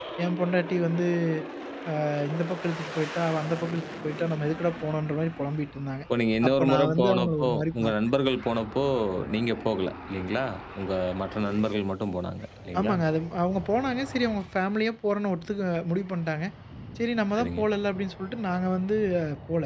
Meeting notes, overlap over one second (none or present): present